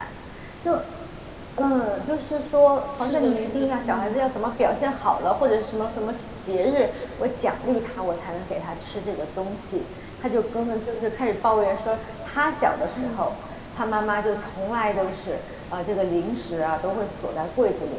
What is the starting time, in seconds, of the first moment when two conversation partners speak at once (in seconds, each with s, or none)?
3.0 s